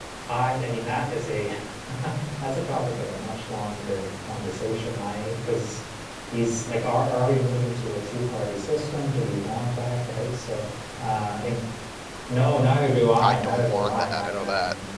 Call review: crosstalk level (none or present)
present